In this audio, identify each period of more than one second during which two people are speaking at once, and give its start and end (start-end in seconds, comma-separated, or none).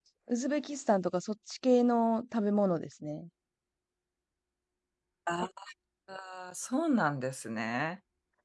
none